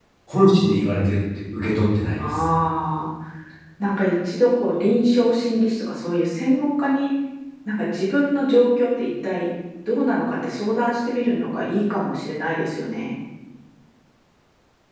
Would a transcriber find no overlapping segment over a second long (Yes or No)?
Yes